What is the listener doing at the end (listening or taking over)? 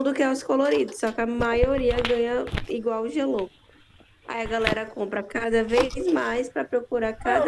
taking over